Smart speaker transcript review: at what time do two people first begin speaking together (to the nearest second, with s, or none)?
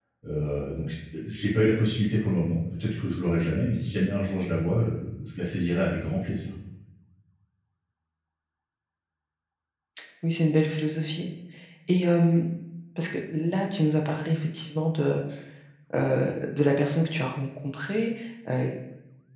none